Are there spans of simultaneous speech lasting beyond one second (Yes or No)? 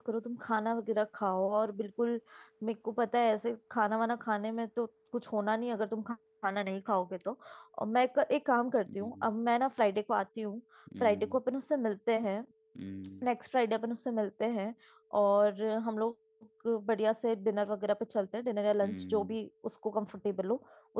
No